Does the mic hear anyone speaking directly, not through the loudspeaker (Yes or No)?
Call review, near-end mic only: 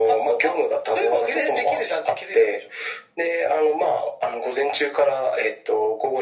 No